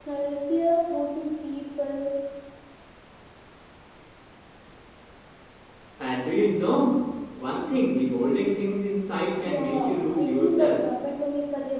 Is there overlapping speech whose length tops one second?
Yes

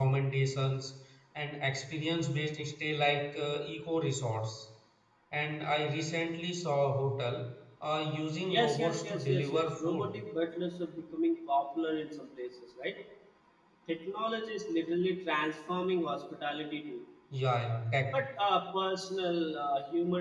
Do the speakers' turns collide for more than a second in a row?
Yes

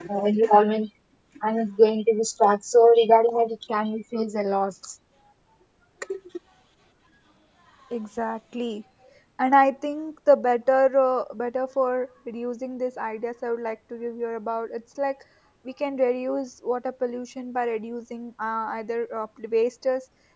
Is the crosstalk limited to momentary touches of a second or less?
Yes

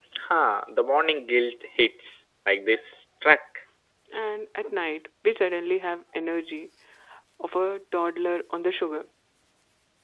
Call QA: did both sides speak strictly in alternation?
Yes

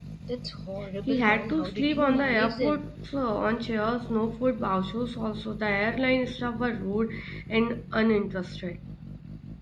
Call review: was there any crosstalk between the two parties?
Yes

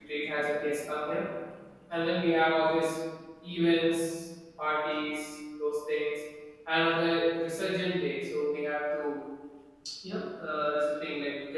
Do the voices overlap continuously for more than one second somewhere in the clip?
No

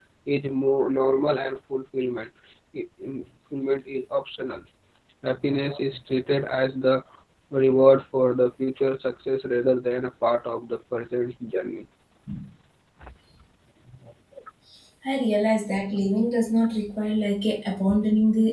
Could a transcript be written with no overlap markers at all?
Yes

